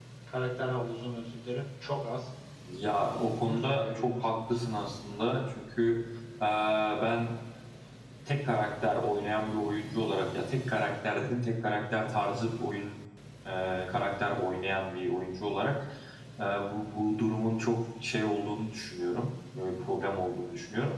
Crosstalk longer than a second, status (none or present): present